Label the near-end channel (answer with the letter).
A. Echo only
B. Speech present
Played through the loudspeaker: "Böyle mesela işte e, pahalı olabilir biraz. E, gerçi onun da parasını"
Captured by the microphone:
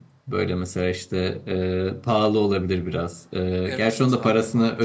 B